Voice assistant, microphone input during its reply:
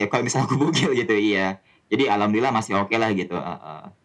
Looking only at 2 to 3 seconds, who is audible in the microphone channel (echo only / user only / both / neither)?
echo only